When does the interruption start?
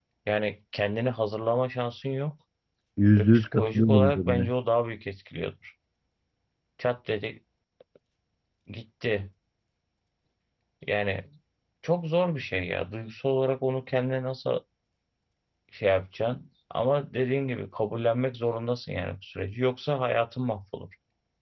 3.2 s

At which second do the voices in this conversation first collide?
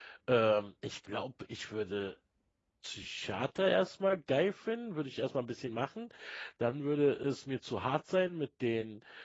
none

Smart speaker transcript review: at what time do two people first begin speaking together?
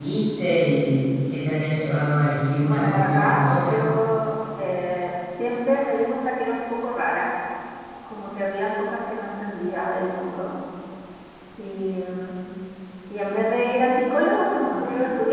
2.6 s

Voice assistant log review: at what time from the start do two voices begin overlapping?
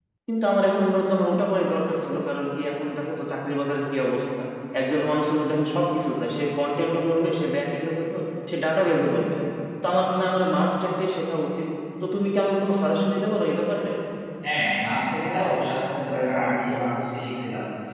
none

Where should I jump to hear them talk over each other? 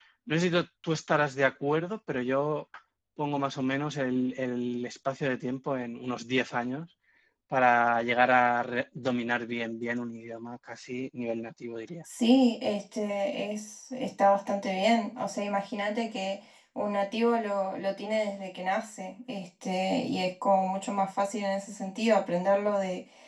none

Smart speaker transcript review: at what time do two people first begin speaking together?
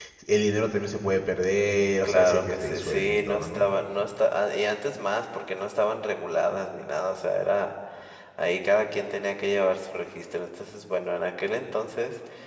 2.0 s

